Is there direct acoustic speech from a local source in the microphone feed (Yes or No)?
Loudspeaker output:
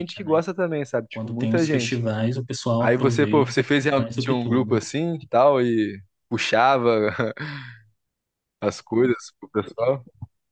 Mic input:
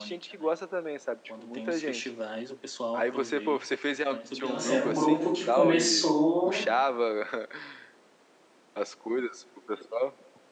Yes